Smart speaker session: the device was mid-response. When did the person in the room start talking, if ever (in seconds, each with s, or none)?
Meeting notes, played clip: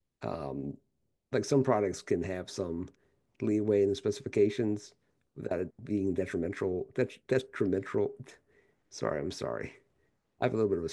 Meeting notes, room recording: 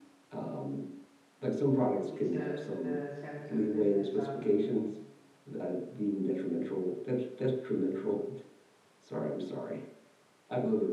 2.1 s